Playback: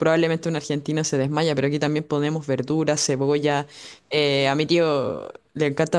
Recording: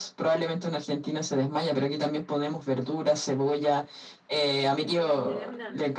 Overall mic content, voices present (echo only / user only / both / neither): both